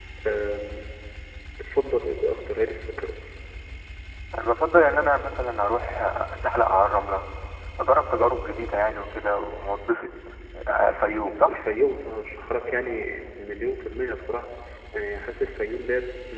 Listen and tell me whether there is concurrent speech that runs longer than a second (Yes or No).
No